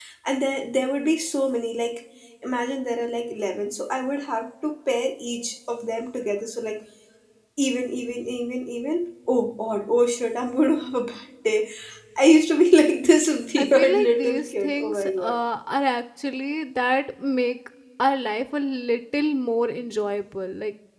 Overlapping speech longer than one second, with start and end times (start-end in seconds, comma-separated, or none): 13.6-15.4